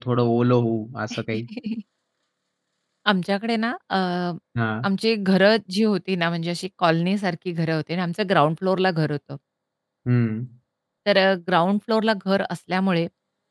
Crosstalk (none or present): none